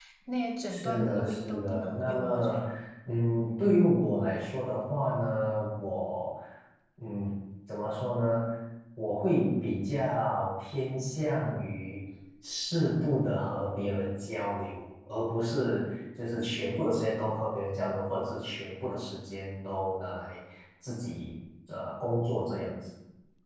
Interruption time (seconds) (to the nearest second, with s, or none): 1 s